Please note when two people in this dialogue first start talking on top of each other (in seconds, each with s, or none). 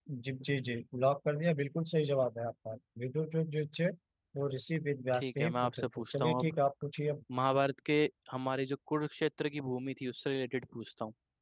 5.1 s